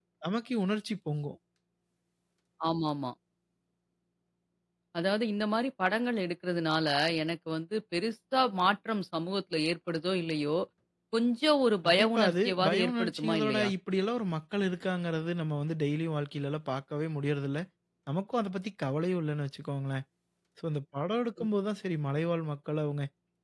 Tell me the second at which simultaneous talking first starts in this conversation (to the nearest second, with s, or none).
12 s